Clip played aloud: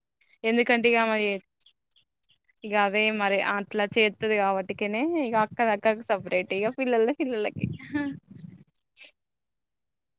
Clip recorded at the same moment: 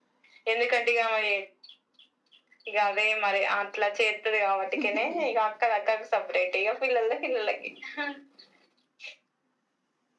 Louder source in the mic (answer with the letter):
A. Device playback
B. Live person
A